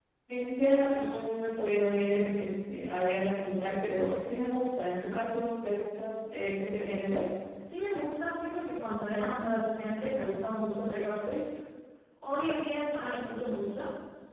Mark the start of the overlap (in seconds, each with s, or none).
none